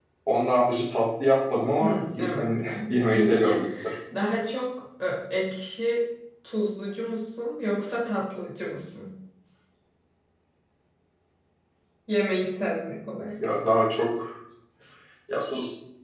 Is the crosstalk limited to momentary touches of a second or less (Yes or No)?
No